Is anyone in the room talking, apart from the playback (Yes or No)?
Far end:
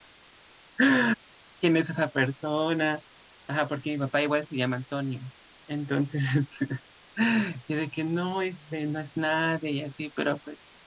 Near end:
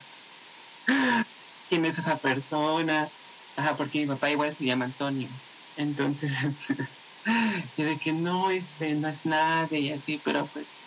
No